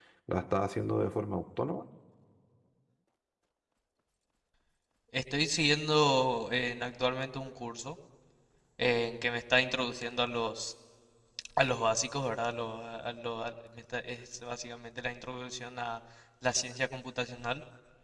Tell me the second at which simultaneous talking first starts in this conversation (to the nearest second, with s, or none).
none